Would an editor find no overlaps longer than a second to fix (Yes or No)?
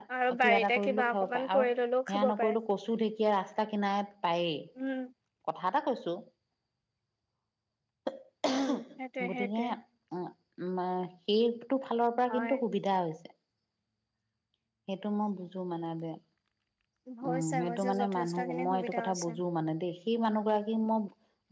No